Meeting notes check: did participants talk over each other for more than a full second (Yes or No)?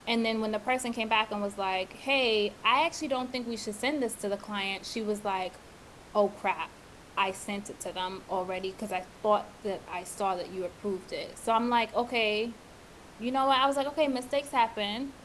No